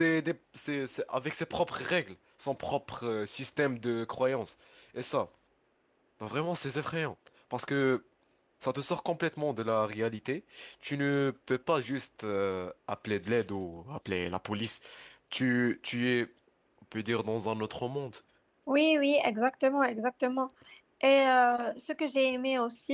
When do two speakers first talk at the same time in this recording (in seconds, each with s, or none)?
none